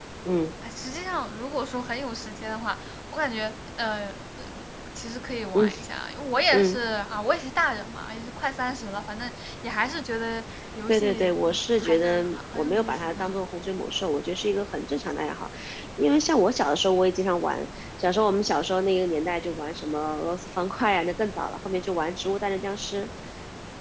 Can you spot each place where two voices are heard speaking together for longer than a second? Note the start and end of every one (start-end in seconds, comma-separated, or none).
10.9-13.2